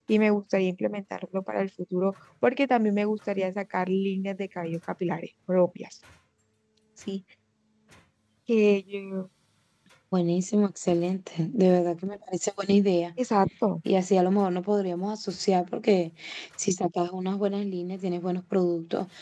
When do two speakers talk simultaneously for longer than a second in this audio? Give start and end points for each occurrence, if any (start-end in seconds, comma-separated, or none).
none